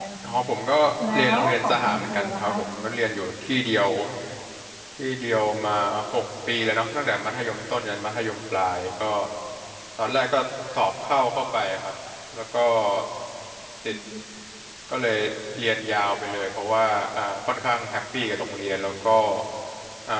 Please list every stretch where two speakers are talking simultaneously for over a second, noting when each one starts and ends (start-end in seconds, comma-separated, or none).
1.1-2.6